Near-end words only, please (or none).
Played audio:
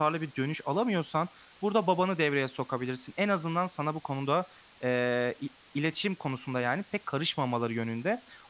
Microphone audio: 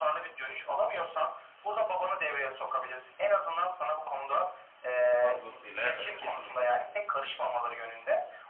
fazlasıyla evet, kesinlikle öyle.